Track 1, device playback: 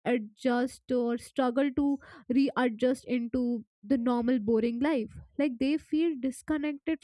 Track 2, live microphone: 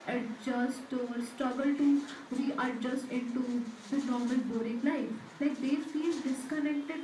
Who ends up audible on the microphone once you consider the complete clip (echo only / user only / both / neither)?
echo only